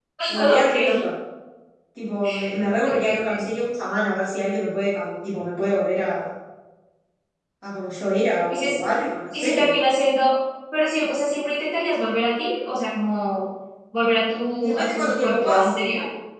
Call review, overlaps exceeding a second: present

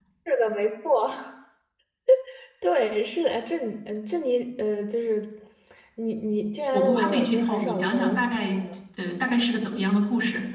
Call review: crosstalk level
present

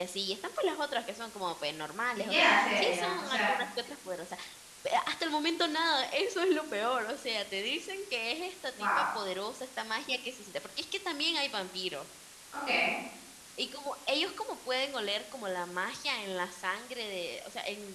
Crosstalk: present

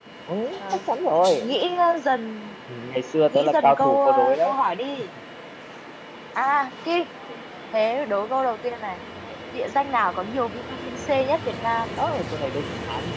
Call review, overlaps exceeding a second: present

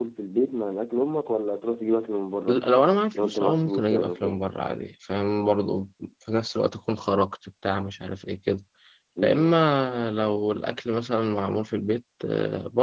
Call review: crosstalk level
present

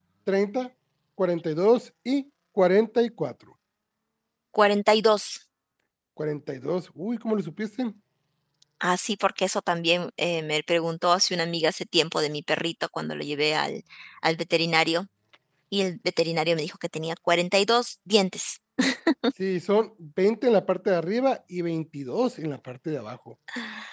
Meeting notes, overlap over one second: none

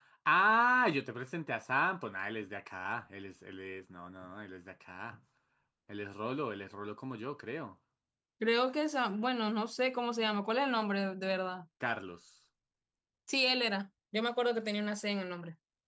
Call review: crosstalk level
none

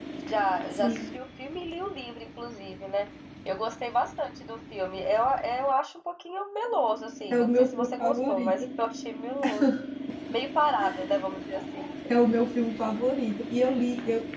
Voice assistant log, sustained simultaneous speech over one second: present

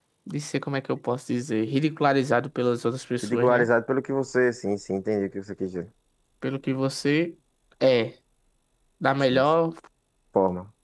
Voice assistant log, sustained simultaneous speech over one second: none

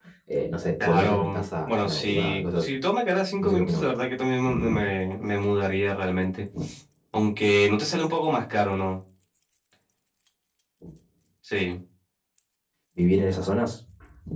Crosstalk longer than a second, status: present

